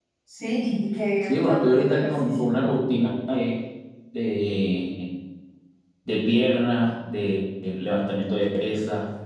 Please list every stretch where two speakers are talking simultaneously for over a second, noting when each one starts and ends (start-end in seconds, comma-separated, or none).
1.2-2.5